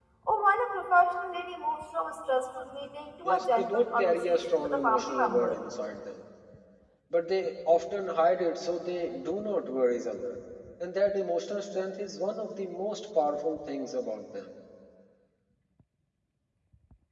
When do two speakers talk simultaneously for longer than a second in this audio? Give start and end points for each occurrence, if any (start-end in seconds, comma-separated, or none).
3.2-5.5